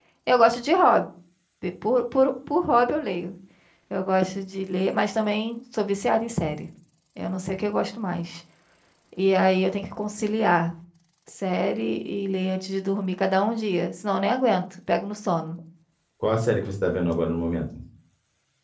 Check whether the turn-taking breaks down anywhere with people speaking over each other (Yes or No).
No